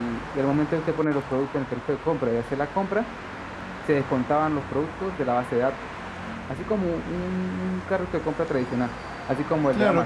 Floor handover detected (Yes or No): Yes